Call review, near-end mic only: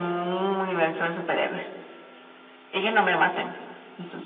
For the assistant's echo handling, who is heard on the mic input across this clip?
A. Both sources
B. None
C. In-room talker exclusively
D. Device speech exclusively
D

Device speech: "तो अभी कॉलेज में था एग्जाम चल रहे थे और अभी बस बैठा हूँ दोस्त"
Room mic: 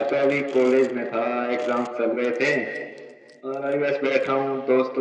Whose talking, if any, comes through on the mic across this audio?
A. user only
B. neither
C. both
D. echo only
D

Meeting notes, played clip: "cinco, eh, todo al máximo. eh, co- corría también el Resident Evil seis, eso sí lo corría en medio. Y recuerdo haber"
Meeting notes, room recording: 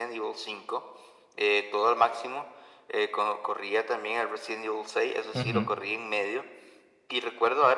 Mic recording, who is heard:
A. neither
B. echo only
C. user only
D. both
D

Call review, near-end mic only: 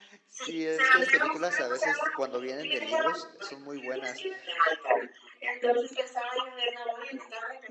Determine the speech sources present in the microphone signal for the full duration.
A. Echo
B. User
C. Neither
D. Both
D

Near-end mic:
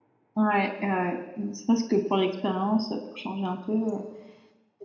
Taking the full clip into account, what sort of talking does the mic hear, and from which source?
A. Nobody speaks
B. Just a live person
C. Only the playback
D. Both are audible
B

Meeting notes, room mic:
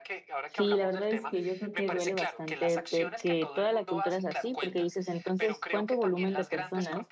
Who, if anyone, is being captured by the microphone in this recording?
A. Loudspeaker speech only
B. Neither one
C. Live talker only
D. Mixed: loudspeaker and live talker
D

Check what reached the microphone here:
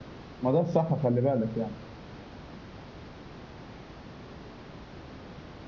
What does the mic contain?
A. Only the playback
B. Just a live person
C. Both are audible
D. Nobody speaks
B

